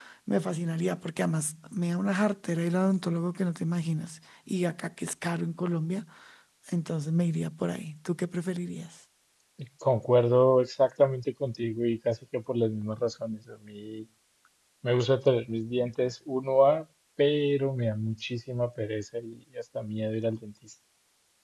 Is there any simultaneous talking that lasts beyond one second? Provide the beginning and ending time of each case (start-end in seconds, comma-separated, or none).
none